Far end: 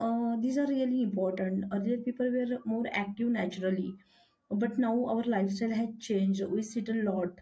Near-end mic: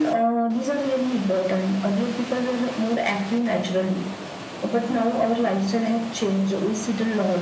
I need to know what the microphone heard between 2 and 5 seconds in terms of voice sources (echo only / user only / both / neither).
echo only